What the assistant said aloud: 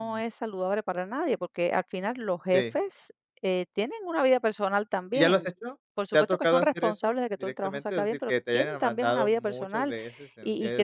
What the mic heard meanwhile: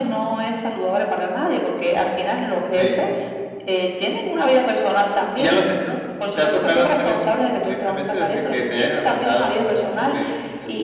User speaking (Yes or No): No